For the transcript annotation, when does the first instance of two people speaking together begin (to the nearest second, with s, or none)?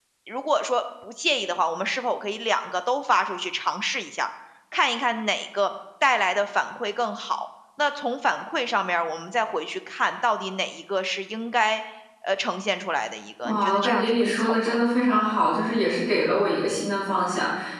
13 s